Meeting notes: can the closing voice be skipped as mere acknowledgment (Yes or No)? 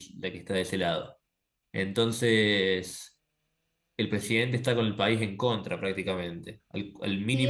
No